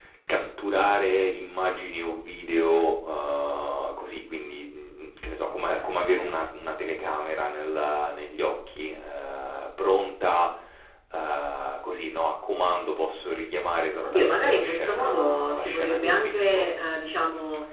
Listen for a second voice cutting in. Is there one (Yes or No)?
Yes